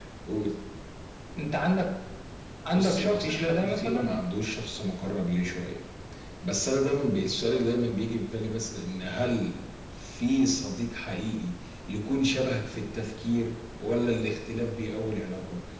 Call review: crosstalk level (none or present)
present